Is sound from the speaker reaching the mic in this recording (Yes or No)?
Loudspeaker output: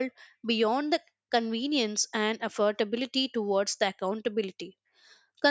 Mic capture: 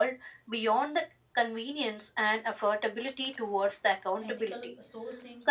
Yes